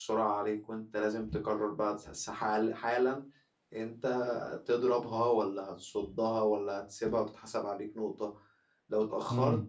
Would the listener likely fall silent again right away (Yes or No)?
Yes